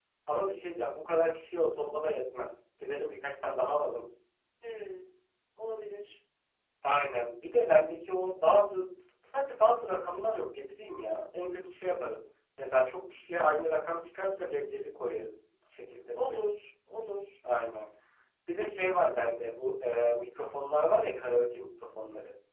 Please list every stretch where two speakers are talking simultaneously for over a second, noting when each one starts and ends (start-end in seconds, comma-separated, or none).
none